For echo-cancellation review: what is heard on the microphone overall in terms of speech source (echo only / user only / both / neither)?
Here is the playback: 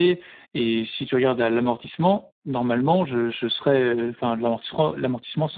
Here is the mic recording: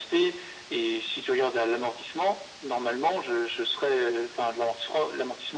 echo only